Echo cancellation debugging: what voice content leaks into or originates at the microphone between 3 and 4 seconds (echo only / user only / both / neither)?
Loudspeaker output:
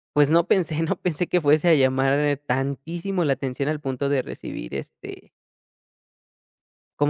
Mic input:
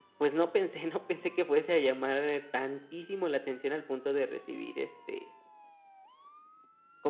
echo only